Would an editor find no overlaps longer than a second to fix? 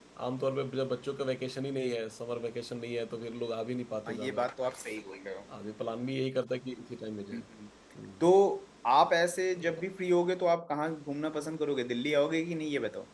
Yes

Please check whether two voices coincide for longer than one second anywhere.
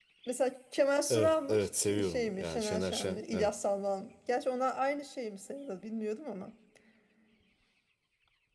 Yes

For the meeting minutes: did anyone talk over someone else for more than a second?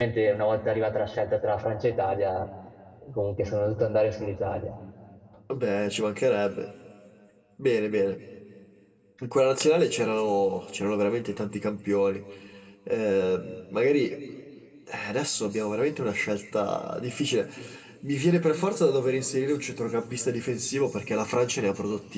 No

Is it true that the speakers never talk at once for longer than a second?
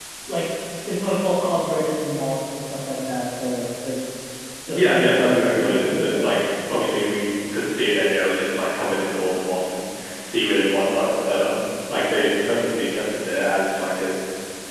No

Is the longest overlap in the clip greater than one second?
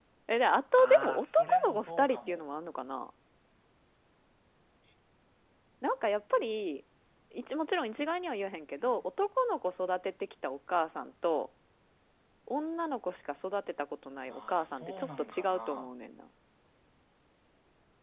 Yes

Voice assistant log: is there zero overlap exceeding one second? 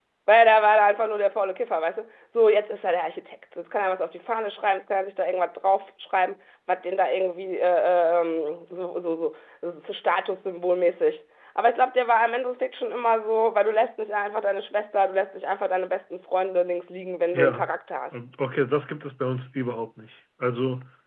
Yes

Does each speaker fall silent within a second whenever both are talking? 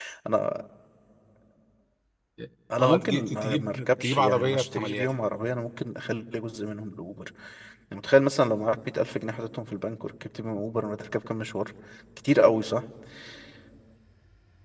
No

